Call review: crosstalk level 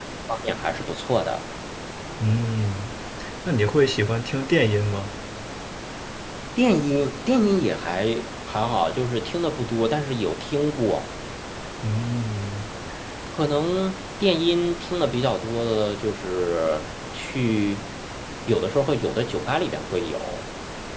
none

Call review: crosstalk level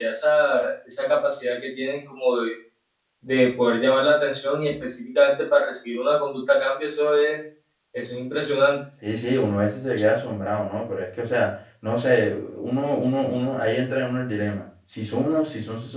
none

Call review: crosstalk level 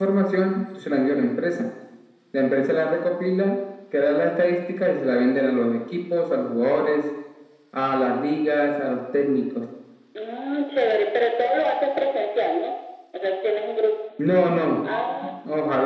none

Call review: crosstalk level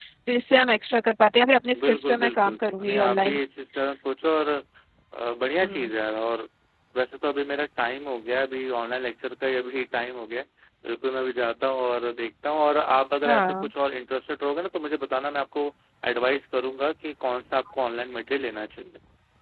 present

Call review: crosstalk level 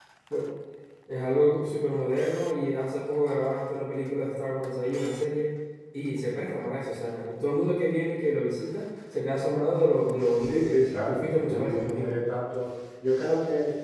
present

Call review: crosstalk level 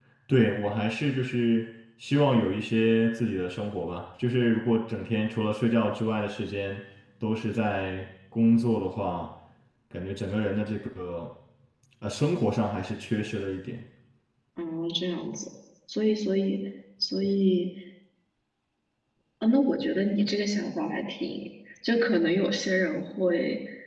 none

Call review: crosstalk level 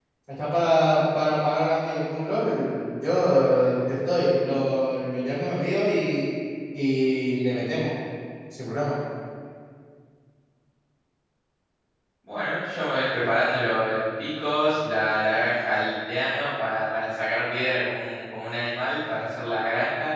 none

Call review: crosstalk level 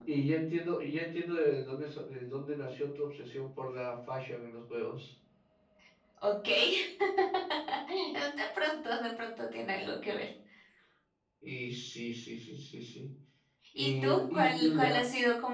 present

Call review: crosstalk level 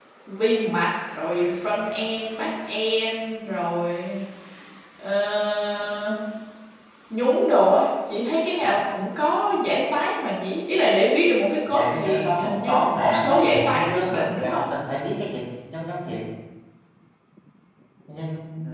present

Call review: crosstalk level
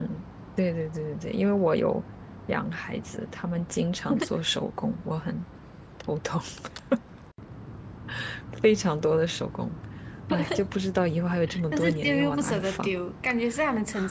present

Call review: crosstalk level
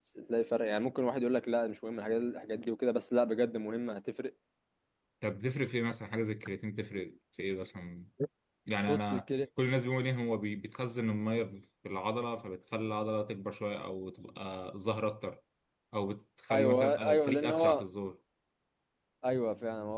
present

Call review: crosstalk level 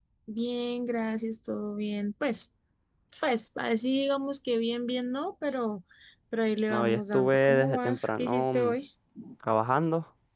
present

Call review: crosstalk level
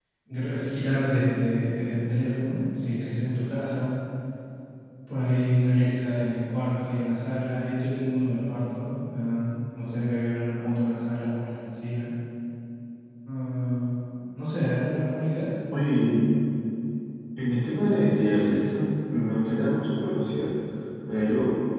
none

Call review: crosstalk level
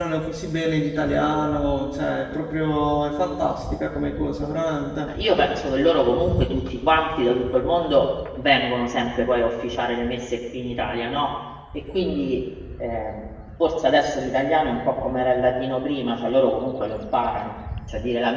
none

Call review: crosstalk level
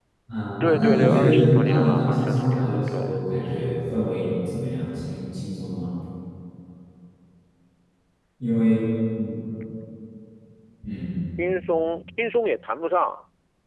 present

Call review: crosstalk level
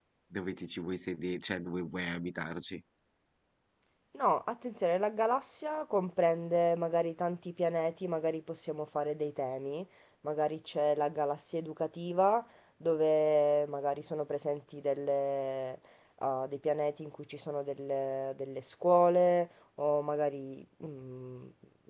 none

